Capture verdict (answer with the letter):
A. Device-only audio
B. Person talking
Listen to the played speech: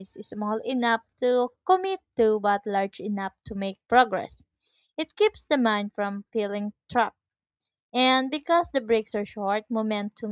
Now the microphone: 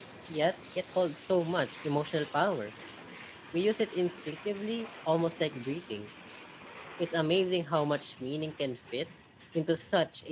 B